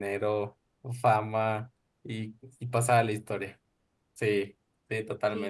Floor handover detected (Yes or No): Yes